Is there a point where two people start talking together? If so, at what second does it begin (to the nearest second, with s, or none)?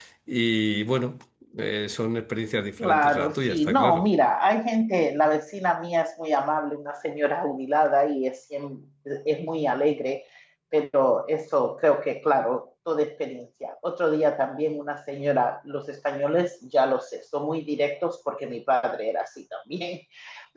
3 s